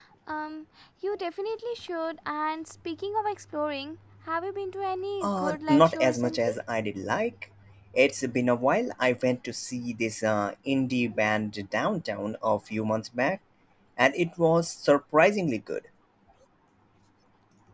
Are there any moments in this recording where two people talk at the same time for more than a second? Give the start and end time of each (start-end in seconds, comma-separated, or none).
5.2-6.5